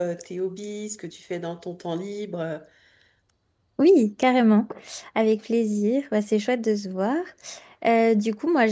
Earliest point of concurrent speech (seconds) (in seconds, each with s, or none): none